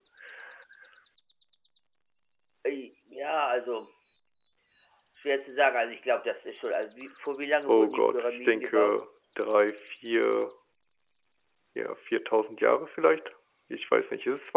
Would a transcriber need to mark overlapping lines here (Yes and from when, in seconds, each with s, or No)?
Yes, from 7.7 s